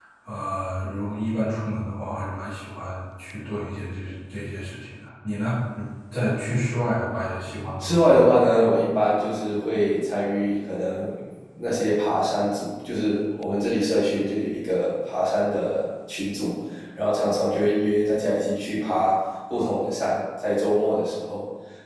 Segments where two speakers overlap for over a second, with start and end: none

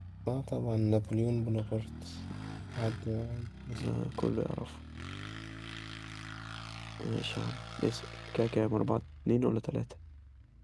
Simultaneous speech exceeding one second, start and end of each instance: none

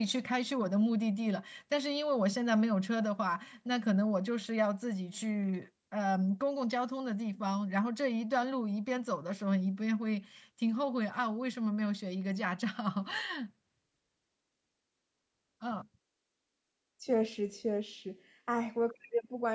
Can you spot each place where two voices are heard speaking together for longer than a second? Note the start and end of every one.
none

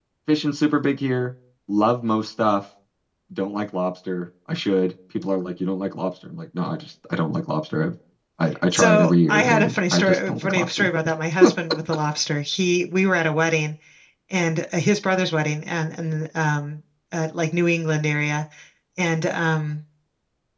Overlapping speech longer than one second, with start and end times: 8.7-10.9

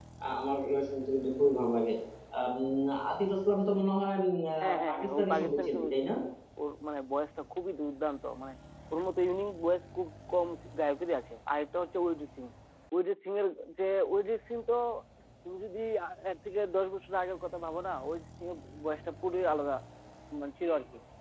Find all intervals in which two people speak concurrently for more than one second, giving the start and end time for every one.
4.6-6.1

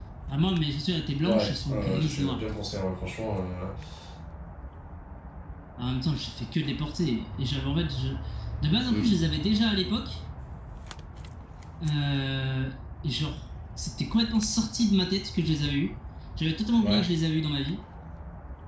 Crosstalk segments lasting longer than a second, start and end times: 1.3-2.6

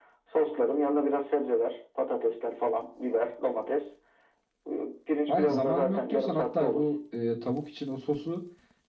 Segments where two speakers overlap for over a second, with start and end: 5.3-6.8

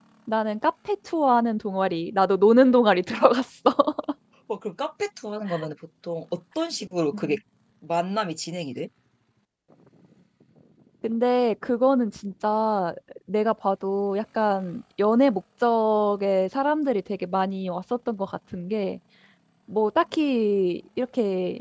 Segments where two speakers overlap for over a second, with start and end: none

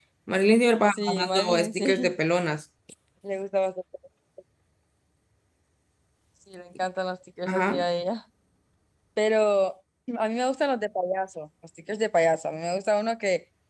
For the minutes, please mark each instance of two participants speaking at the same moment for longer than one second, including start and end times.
0.9-2.1

